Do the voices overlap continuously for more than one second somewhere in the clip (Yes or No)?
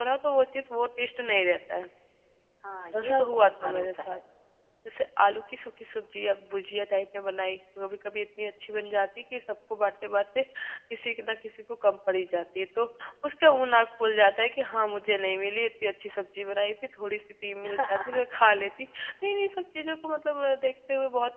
Yes